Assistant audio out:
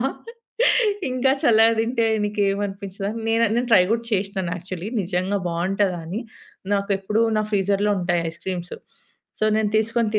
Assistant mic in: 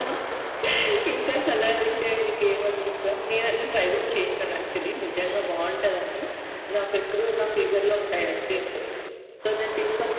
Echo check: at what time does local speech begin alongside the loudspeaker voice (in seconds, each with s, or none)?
none